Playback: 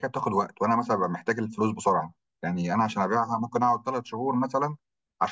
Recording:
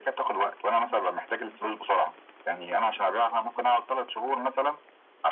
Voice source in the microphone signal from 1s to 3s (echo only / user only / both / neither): echo only